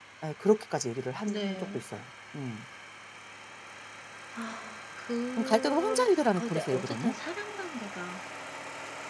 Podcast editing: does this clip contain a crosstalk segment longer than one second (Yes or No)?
Yes